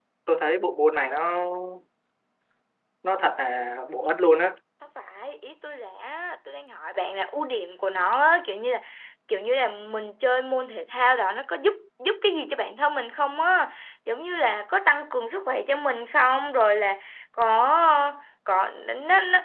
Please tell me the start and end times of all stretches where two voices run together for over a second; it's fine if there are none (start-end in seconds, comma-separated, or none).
none